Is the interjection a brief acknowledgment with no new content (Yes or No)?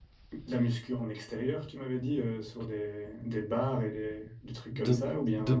No